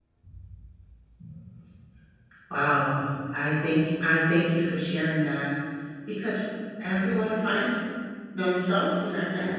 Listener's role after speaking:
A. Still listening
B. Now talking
A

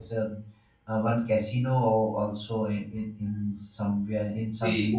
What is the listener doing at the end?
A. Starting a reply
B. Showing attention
A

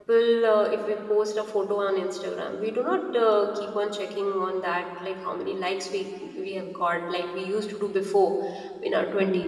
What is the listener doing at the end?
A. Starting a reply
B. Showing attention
B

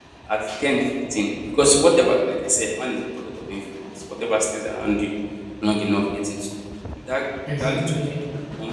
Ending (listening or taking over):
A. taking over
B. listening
B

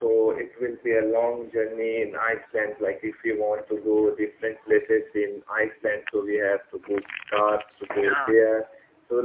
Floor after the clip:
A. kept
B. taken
A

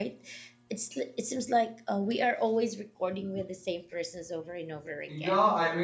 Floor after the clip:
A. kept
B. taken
B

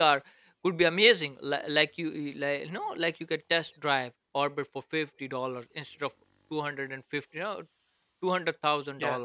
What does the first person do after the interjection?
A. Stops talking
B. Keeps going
B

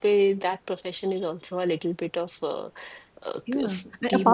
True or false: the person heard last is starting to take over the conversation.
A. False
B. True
B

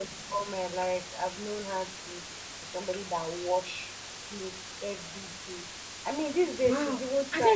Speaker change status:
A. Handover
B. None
A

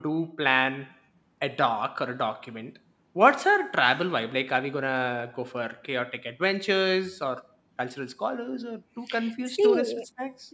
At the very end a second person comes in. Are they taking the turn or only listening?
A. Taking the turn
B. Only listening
A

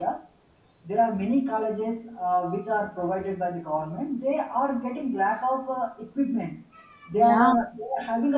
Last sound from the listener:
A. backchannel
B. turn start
A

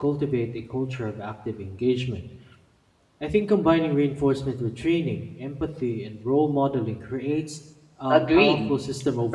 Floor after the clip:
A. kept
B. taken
B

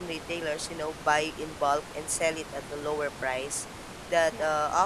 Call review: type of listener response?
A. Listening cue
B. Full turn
A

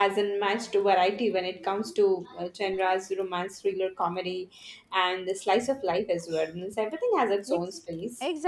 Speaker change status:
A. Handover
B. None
A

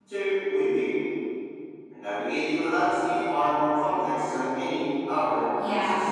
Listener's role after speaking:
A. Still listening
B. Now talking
B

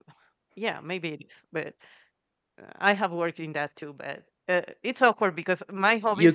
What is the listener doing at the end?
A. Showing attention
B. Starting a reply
B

